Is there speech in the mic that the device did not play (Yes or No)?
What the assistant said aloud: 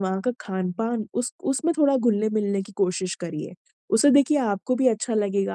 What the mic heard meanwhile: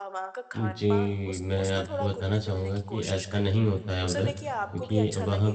Yes